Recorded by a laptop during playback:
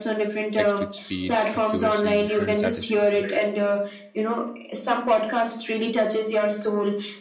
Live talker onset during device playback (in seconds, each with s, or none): 0.6 s